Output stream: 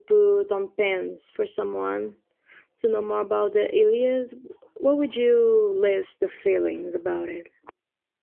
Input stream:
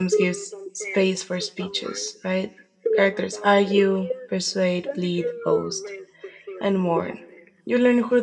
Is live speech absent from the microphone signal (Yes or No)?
No